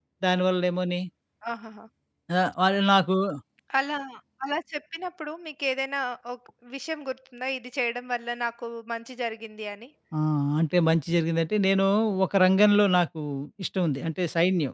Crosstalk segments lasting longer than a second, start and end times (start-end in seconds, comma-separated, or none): none